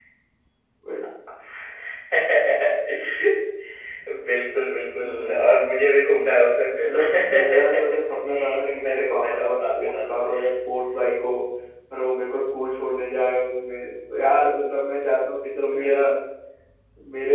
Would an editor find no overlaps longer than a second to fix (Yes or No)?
No